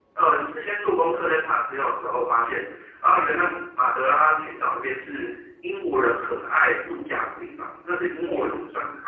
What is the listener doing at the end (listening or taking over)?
listening